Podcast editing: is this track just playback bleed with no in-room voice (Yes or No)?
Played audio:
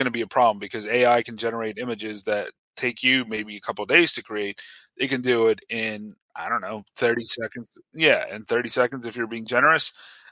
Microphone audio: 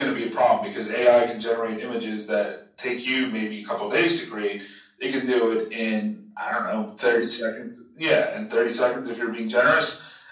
Yes